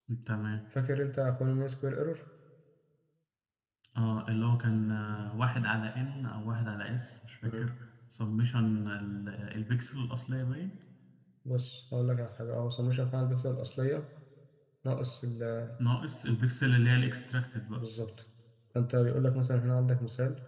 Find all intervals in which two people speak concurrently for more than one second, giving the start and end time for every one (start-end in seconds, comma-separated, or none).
none